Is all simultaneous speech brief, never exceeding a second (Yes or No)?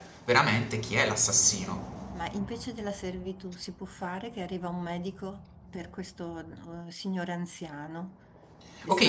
Yes